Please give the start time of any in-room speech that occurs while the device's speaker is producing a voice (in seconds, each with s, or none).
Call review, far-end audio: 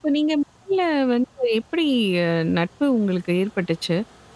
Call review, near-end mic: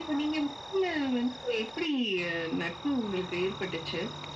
none